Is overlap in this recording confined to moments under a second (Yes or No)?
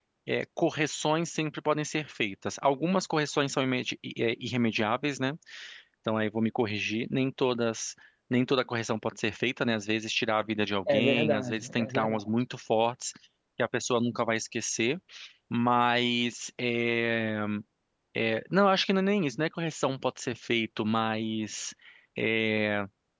No